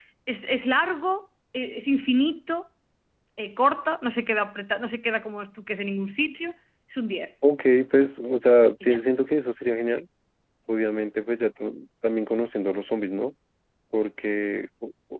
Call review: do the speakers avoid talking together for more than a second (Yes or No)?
Yes